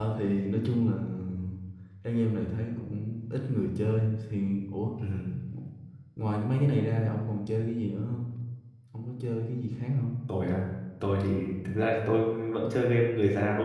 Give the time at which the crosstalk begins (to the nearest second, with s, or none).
none